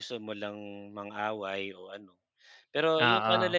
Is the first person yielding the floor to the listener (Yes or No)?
No